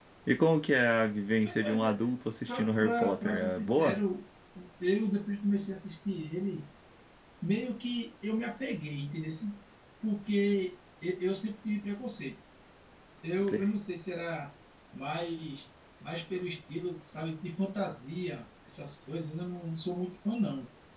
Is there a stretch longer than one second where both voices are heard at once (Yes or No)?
Yes